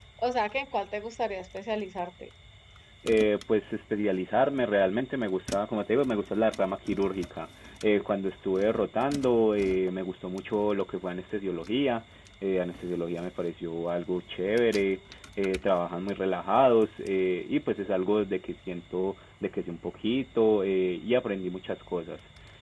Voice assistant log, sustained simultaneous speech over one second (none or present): none